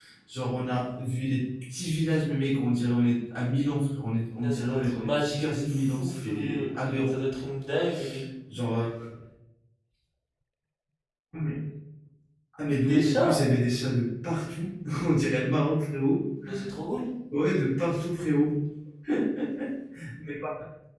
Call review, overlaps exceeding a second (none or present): present